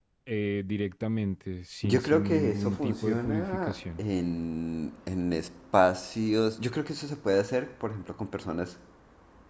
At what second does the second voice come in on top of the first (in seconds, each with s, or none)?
1.8 s